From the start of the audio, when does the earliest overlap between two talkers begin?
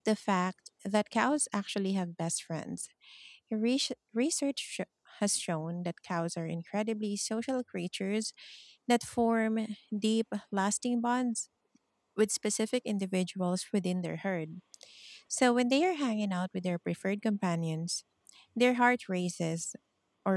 none

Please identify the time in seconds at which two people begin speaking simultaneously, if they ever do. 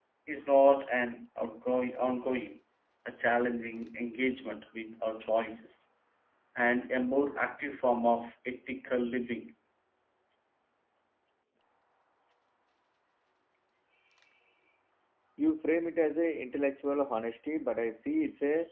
none

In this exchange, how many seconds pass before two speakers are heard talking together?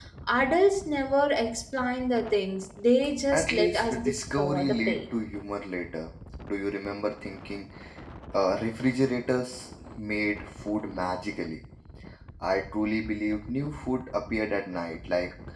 3.3 s

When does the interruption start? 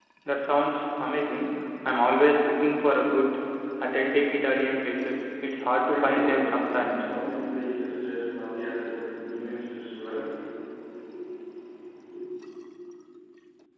5.8 s

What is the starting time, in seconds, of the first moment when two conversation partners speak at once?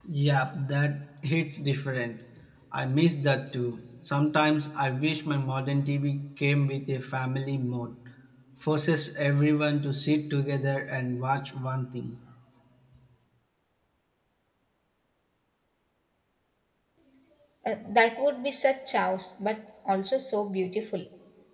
none

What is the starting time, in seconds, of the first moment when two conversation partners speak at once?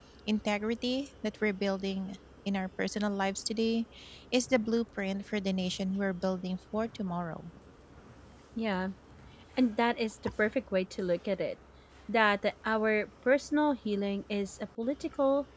none

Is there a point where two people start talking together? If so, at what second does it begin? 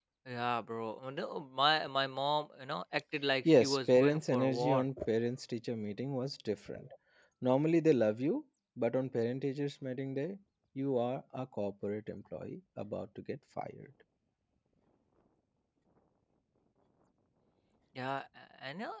3.5 s

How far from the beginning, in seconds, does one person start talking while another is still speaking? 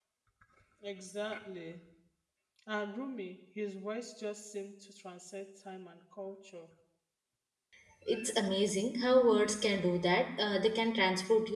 none

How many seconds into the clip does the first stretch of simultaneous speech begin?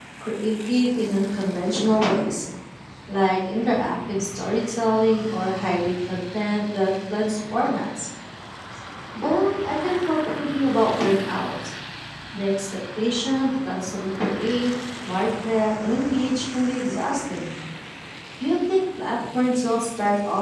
none

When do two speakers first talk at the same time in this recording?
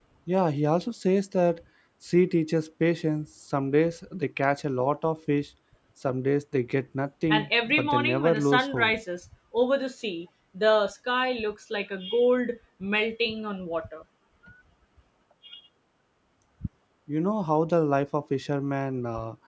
7.3 s

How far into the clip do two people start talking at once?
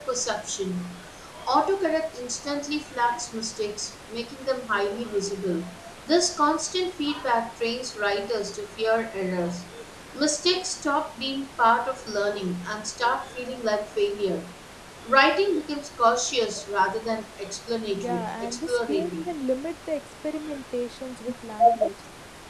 18.0 s

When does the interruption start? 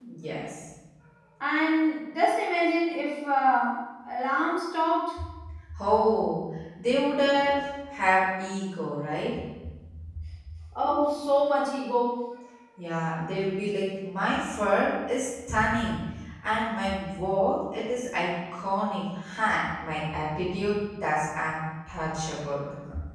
none

